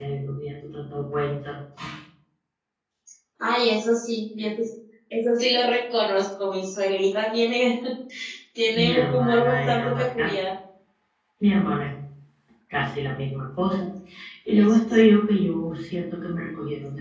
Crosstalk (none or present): present